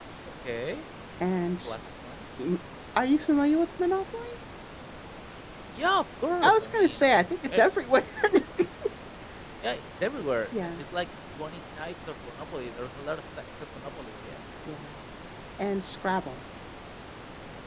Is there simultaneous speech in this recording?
Yes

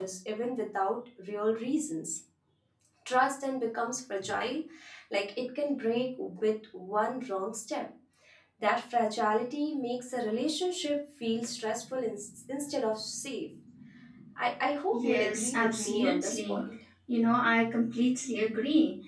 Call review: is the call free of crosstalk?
No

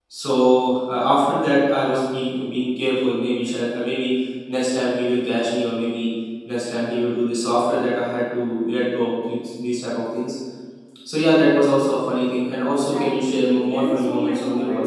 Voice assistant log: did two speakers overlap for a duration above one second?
Yes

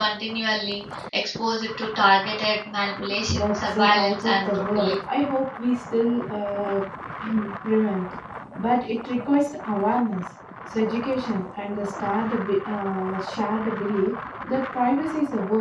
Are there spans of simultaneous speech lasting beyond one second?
Yes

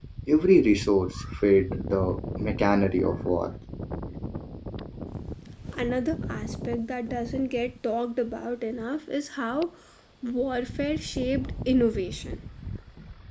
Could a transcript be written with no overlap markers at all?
Yes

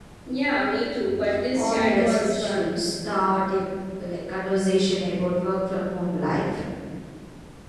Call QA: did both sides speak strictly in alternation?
No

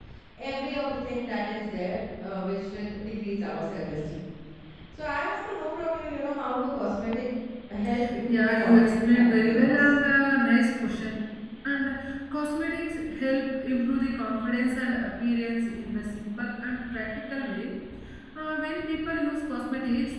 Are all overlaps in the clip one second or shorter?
No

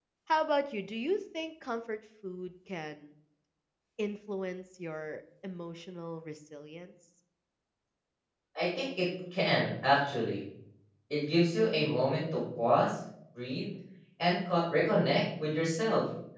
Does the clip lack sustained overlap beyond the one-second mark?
Yes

